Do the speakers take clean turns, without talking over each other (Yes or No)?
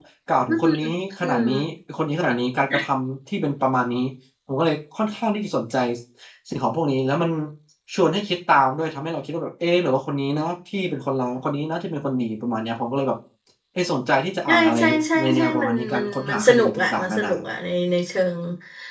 No